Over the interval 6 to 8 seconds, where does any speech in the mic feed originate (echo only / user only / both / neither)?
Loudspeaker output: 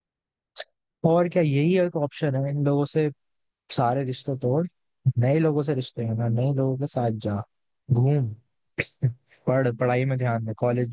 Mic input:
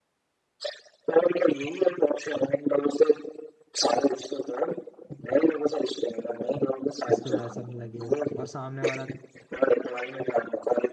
both